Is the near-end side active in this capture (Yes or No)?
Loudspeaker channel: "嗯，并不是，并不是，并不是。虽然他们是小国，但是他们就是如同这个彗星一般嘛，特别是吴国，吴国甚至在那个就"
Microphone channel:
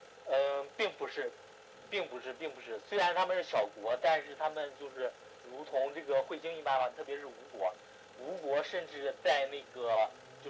No